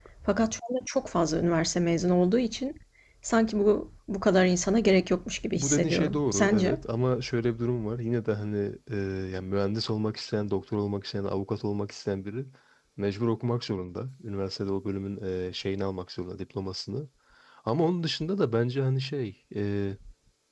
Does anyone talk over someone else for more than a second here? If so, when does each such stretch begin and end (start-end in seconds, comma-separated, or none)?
5.6-6.8